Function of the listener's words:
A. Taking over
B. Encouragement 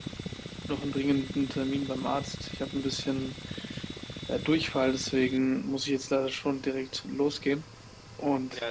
A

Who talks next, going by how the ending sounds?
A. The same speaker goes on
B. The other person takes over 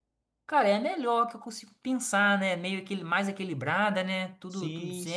B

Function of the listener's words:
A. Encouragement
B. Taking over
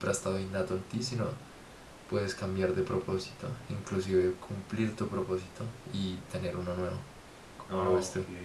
B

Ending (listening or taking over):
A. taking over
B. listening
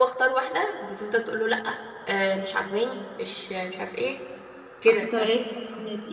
A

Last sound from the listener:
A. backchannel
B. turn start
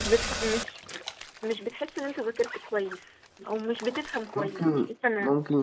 B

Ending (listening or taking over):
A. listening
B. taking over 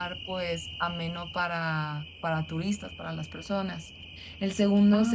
A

